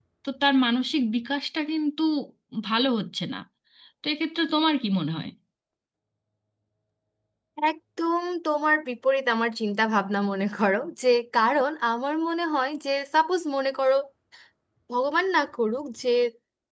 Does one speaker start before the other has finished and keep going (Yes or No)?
No